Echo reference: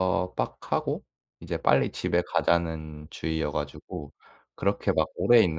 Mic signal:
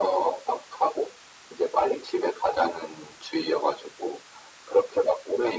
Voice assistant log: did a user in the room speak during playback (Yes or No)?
No